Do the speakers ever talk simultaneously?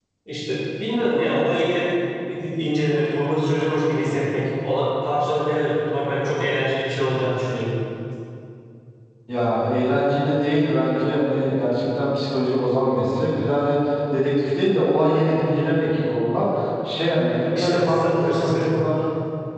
Yes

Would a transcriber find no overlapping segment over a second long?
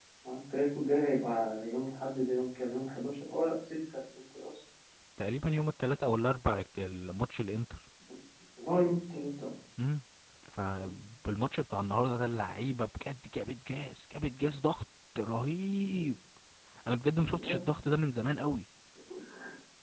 Yes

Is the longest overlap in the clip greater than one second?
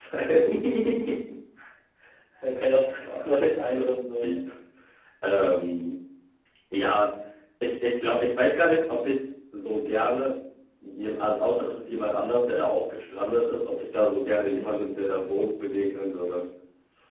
Yes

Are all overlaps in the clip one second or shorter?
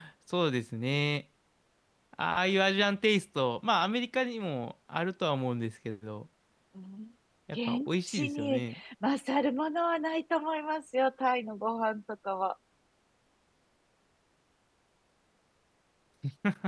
No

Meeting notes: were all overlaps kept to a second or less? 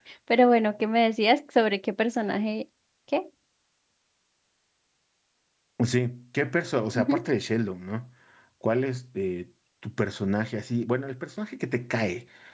Yes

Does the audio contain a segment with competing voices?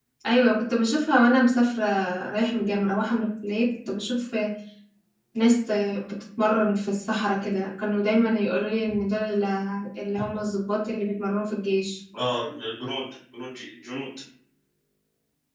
No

